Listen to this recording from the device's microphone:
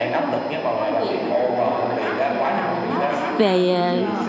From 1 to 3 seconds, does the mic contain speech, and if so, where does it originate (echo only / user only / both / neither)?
echo only